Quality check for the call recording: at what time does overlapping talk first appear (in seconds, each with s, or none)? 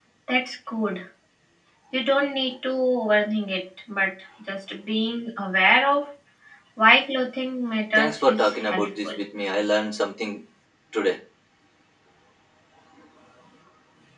8.0 s